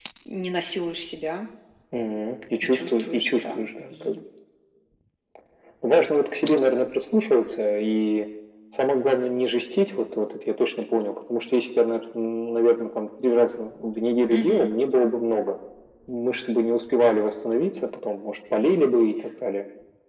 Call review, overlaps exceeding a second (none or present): present